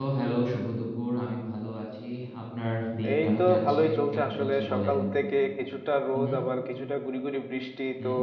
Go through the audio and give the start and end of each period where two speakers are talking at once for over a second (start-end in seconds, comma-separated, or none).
3.1-4.9